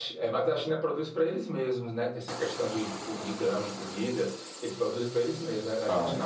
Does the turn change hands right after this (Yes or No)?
No